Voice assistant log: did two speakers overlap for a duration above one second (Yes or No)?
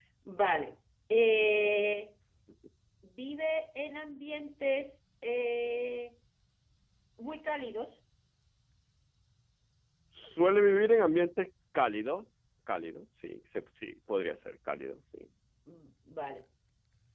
No